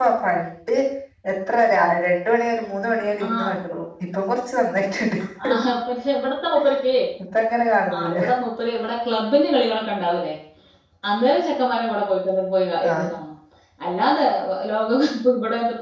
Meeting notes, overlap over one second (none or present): none